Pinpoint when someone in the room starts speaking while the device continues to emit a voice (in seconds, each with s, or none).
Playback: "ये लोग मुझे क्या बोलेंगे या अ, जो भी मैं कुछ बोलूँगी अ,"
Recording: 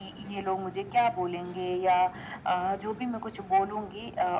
none